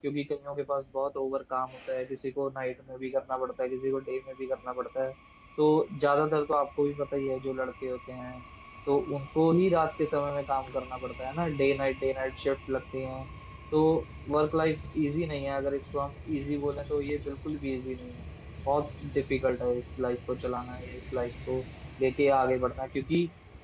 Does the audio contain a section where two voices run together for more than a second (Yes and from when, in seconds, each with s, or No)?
No